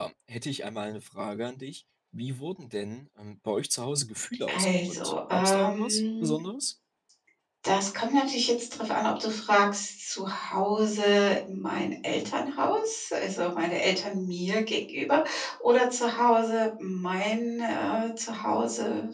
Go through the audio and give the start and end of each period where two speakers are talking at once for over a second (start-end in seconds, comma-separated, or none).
4.5-6.3